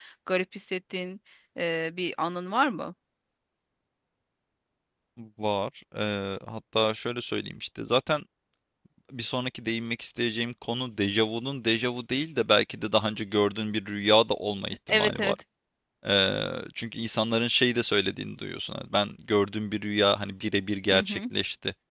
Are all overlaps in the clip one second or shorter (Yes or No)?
Yes